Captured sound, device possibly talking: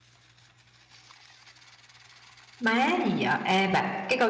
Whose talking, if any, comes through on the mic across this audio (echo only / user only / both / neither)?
user only